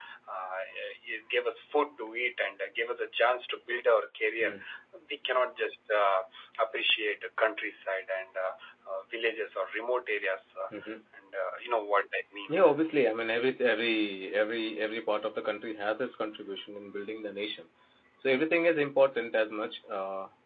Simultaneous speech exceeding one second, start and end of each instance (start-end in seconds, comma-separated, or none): none